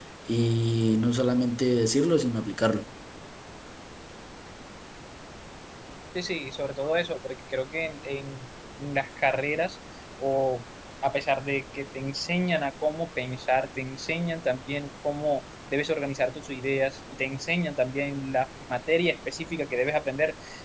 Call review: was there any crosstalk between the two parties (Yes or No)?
No